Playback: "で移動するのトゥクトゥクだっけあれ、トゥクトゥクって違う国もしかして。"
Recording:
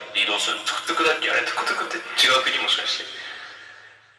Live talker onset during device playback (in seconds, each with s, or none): none